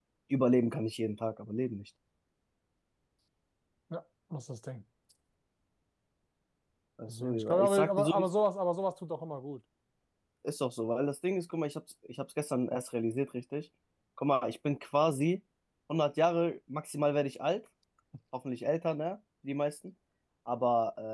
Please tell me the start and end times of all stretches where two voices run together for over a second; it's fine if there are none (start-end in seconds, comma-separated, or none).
7.1-8.3